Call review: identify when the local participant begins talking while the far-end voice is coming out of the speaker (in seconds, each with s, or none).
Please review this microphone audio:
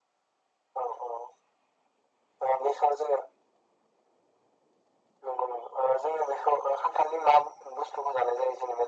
none